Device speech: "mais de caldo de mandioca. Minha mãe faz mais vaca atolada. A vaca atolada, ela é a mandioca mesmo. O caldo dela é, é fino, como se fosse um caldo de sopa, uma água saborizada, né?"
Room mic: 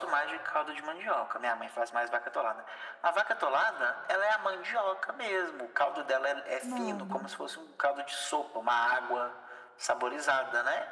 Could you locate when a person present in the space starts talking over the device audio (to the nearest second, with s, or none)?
7 s